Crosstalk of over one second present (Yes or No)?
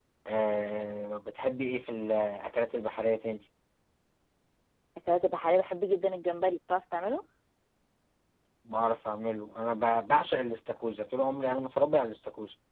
No